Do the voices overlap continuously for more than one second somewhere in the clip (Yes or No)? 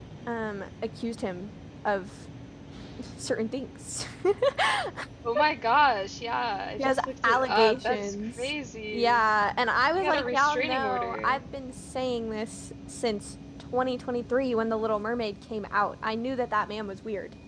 Yes